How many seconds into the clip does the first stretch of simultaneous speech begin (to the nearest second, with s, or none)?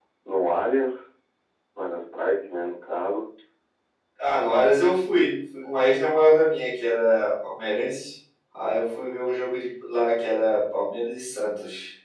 none